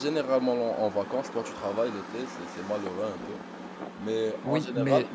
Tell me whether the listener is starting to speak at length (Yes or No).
Yes